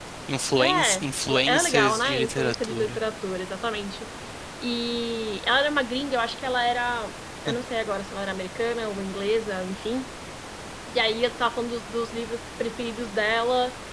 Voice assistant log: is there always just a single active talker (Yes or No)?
No